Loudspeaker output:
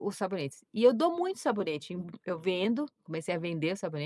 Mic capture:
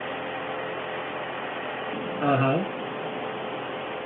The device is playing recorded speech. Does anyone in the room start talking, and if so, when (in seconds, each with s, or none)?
2.2 s